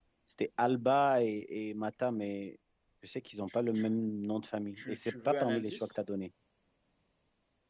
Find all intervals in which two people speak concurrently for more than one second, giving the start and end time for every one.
4.8-6.0

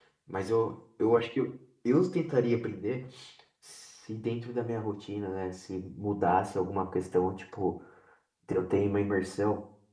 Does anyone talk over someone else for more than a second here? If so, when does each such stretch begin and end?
none

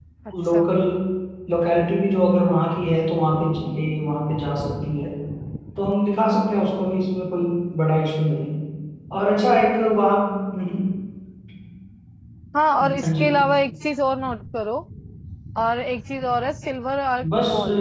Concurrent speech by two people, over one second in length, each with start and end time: none

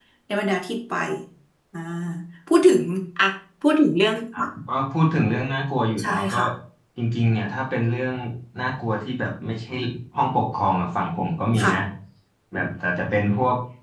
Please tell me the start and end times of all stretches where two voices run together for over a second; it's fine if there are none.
none

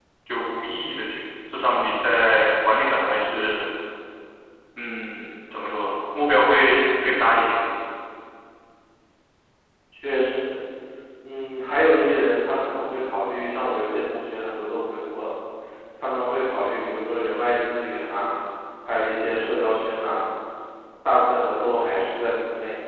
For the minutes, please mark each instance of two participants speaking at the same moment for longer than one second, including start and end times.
none

